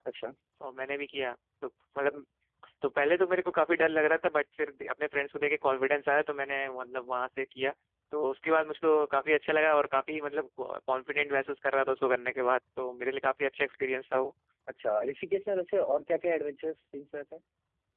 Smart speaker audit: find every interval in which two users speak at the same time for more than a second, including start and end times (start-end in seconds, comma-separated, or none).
none